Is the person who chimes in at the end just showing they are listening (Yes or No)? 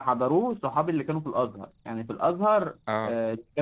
Yes